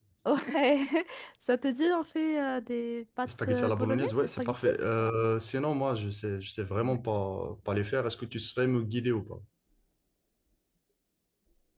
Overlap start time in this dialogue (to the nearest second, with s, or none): 3 s